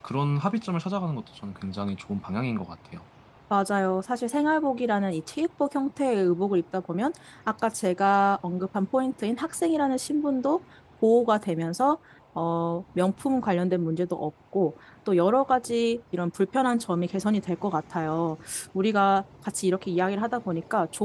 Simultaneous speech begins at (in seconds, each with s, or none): none